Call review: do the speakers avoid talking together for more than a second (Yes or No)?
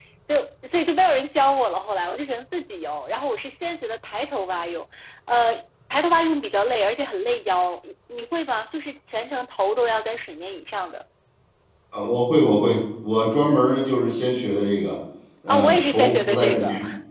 No